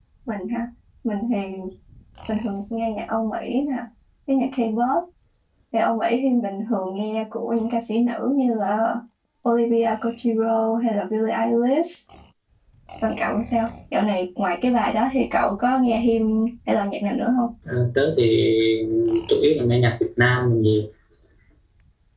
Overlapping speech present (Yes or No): No